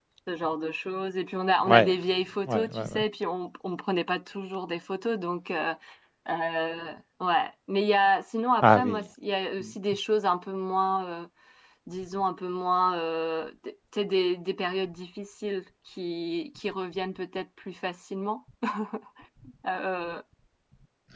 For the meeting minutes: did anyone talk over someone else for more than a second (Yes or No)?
No